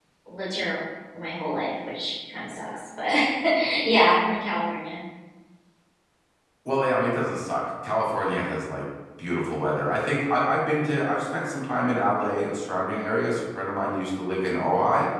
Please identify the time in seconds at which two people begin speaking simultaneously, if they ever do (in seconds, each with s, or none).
none